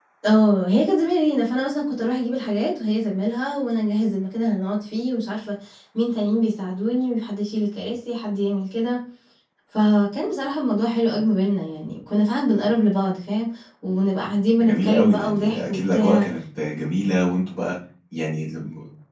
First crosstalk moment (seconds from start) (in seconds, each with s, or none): 14.6 s